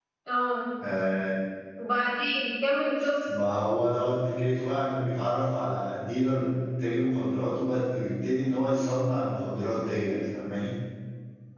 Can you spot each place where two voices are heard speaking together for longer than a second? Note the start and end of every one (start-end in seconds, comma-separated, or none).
none